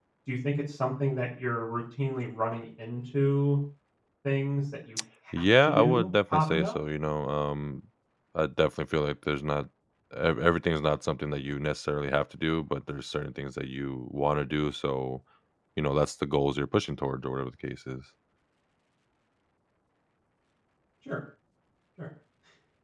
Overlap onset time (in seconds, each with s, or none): 5.4 s